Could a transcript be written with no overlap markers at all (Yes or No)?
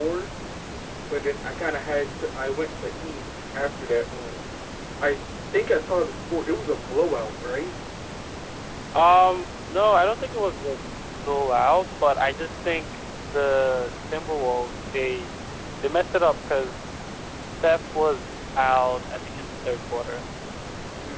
Yes